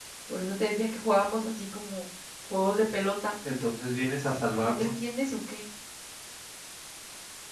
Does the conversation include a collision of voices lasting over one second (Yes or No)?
No